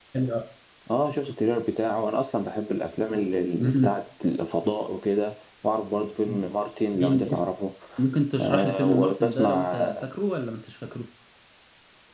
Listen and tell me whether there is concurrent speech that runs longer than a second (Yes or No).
Yes